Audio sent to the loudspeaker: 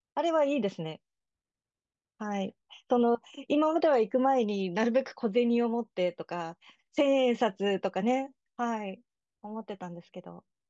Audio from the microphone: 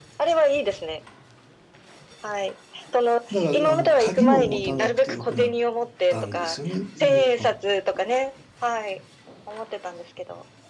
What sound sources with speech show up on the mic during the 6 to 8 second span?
both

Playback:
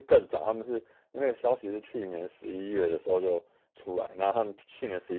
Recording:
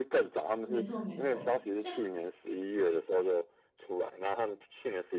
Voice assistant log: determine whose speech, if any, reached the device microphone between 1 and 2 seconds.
both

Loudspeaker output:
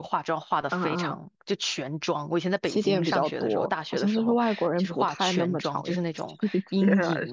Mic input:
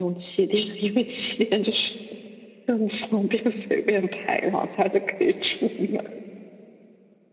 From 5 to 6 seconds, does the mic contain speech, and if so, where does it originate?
user only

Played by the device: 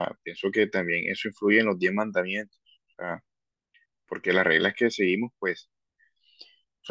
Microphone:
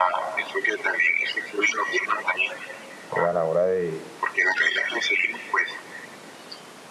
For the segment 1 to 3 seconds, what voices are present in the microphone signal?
echo only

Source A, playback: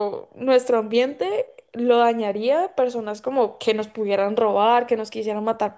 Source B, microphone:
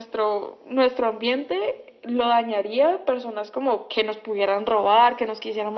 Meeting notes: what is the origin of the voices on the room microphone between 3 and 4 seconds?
echo only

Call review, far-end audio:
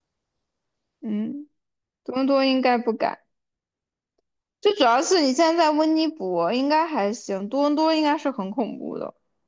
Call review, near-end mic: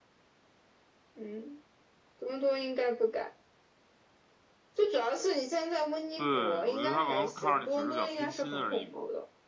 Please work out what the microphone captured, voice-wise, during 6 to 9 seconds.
both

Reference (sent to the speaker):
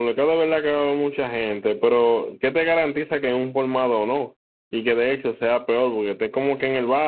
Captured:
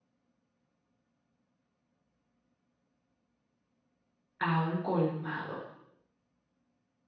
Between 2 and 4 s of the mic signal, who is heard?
neither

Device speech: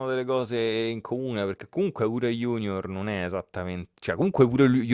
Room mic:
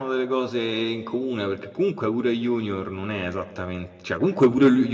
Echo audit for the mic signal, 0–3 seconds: echo only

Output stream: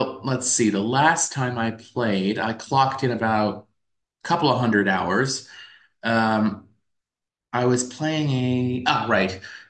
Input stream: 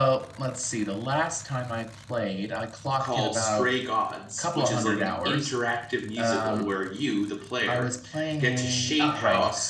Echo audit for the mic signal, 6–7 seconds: both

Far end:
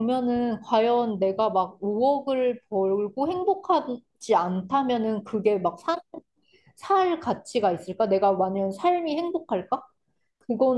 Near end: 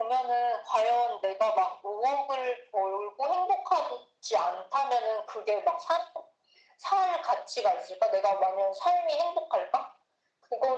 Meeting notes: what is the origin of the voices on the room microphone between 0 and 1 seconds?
echo only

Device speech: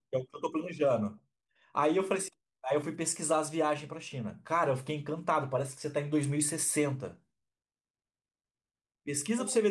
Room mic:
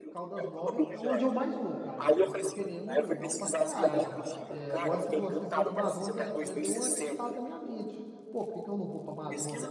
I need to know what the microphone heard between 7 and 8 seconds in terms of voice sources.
both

